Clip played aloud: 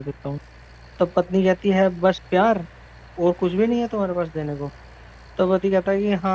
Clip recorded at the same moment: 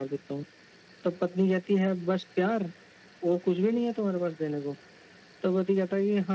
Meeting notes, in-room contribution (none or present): none